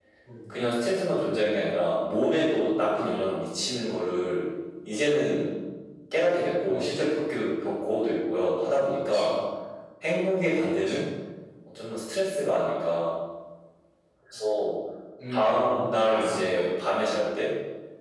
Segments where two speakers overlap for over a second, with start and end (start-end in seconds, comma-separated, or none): 15.3-16.6